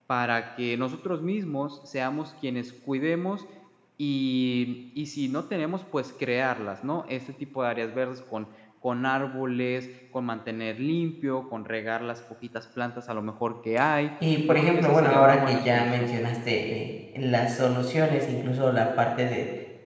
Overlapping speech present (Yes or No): Yes